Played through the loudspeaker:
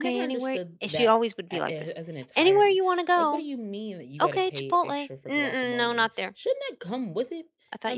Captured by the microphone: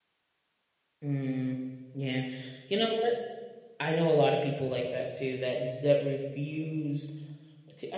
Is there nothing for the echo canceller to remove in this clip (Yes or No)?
Yes